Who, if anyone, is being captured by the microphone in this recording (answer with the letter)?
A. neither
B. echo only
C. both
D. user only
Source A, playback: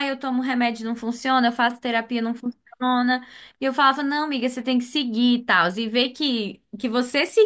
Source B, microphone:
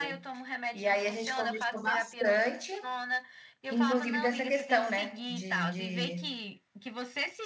C